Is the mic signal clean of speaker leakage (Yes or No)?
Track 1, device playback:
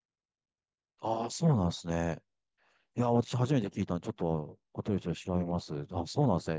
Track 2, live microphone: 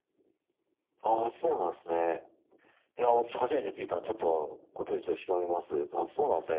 No